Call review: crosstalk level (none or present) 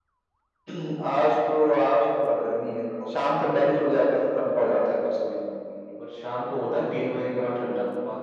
present